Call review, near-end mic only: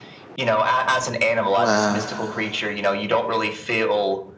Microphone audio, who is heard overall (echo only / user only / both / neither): both